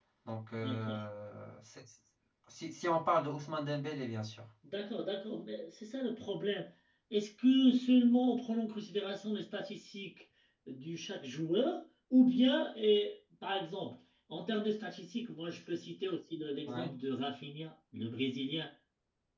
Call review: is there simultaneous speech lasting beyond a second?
No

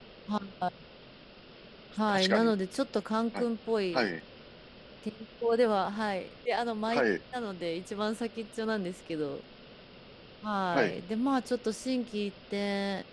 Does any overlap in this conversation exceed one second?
No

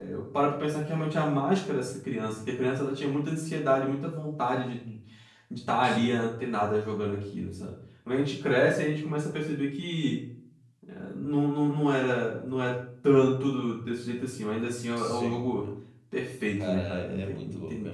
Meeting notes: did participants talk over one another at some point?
Yes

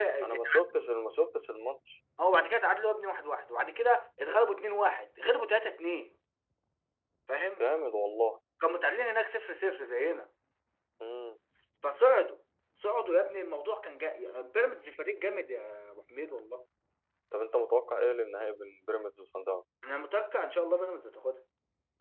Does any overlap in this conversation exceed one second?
No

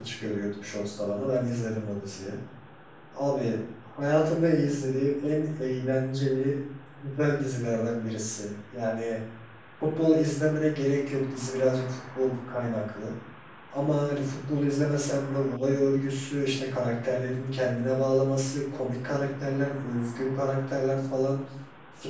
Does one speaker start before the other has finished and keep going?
No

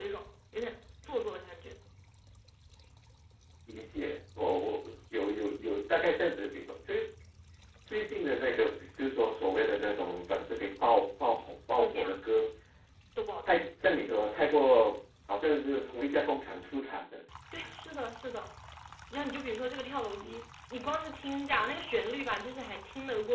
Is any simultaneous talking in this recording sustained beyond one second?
No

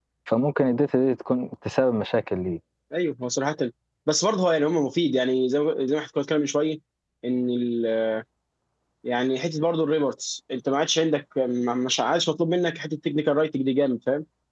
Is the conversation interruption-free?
Yes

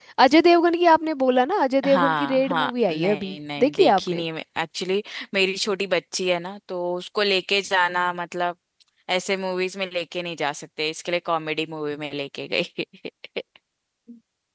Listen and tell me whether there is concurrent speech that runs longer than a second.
Yes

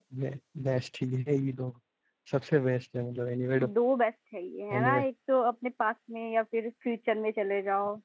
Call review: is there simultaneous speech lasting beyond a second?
No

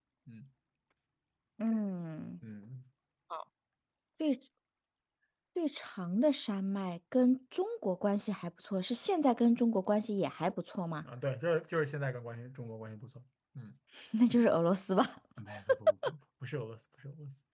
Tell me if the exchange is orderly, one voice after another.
Yes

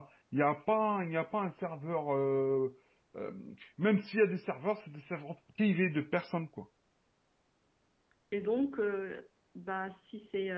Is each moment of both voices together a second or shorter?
Yes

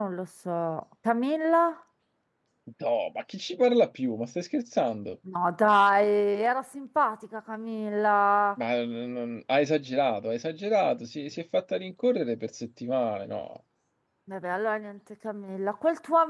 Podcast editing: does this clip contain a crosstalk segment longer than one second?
No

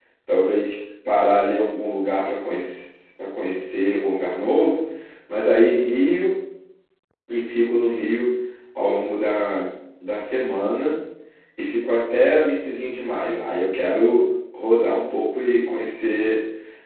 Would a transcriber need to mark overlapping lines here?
No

